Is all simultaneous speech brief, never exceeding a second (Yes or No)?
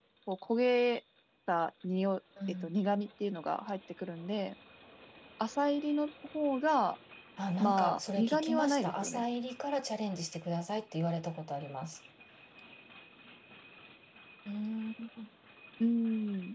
No